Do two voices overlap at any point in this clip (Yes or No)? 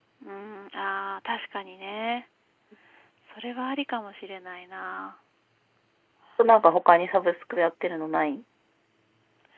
No